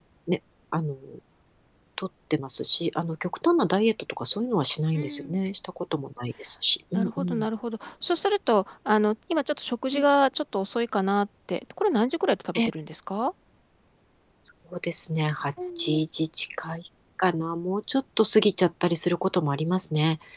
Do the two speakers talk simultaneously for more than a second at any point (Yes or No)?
No